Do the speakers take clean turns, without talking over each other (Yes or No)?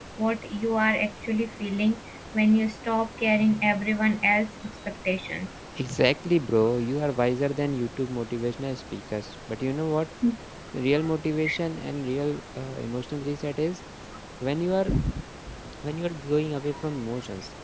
Yes